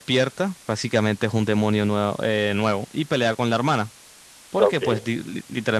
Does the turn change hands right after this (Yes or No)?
No